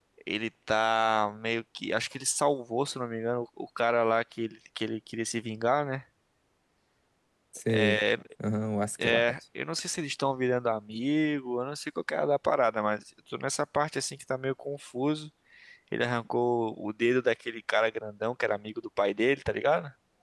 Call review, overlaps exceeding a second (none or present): none